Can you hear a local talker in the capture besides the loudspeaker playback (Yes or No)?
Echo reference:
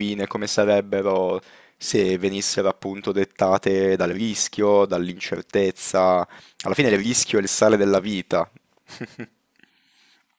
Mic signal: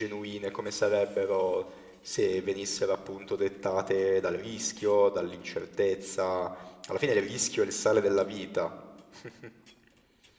No